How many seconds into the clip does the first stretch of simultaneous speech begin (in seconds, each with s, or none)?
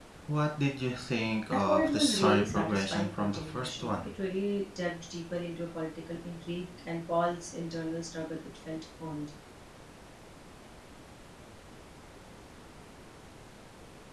1.5 s